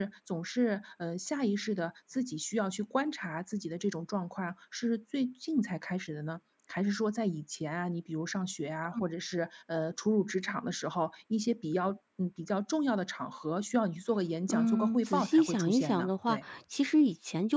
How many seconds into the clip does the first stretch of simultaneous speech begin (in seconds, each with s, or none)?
14.5 s